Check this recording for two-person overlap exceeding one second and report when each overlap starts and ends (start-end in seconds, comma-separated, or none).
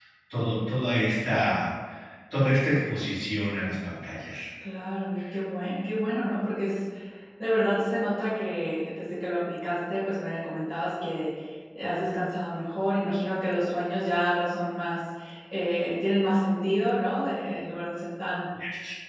none